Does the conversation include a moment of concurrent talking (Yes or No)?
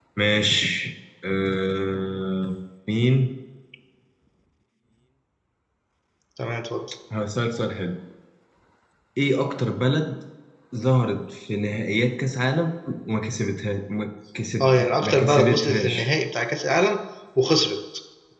Yes